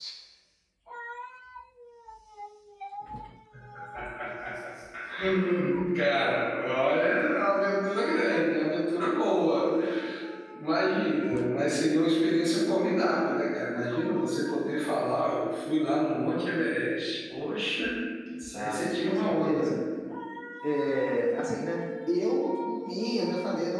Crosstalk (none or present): present